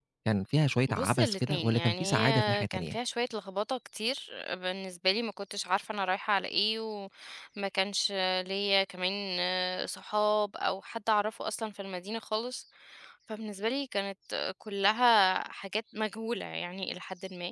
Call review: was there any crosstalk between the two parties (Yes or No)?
Yes